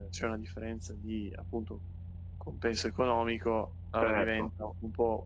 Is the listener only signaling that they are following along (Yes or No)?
Yes